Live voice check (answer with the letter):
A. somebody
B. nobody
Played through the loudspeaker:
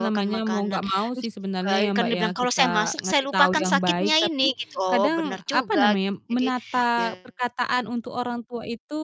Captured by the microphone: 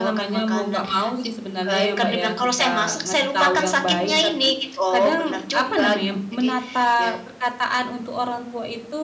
A